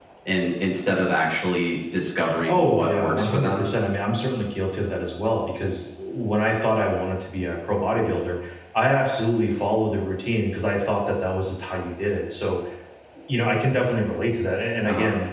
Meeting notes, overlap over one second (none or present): present